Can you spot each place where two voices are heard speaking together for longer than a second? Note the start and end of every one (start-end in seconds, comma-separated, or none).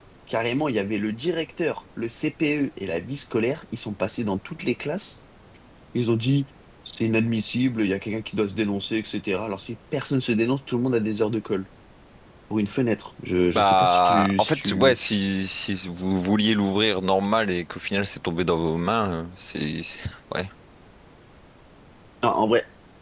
13.6-15.0